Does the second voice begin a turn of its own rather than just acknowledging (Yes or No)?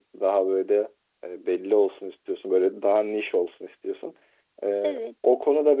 No